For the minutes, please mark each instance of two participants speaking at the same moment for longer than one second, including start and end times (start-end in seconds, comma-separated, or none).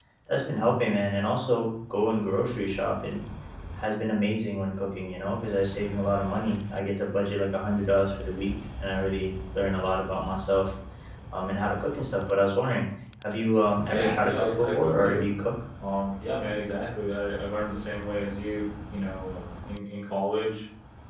13.9-15.2